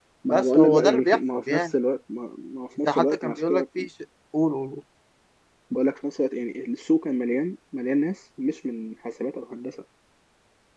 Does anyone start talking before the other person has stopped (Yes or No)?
Yes